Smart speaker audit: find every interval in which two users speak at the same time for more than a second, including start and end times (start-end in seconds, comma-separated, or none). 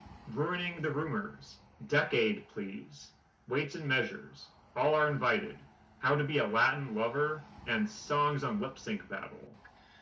none